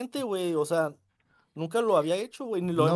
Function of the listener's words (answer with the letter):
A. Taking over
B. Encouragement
A